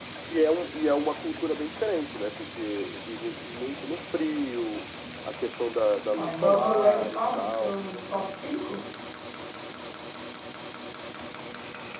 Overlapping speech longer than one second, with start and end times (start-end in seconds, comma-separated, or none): 6.2-7.8